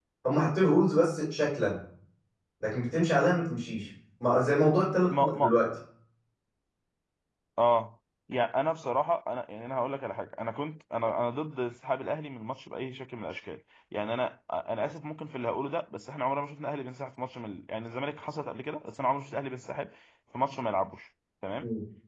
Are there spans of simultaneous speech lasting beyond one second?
No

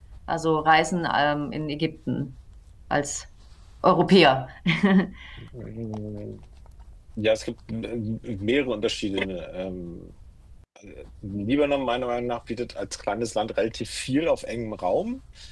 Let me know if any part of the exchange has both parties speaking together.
No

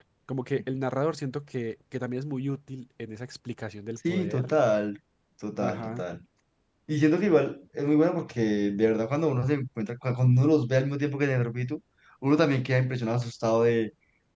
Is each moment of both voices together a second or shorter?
Yes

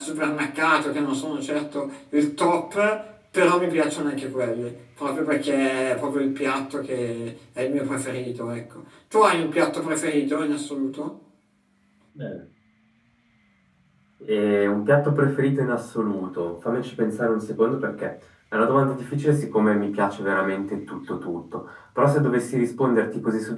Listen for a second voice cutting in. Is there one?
No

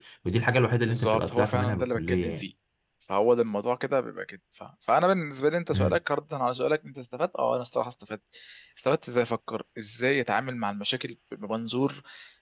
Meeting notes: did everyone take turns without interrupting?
No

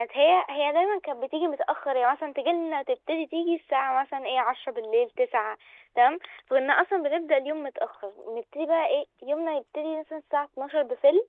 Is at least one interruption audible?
No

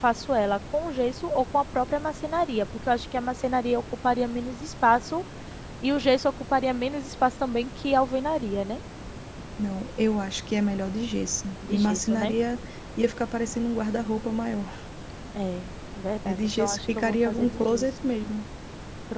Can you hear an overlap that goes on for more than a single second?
Yes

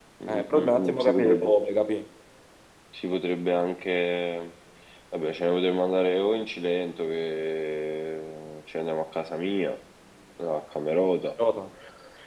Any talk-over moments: Yes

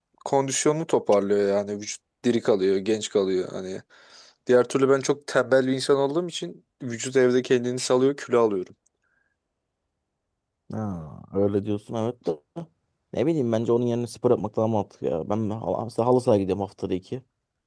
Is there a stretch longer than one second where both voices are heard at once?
No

